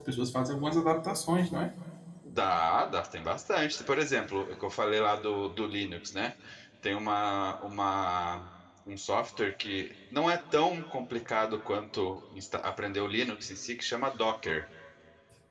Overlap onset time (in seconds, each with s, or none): none